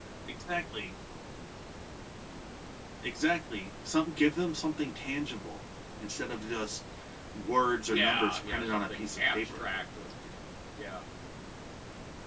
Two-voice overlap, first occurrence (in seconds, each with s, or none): 7.9 s